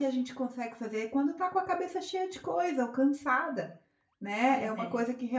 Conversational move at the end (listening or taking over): listening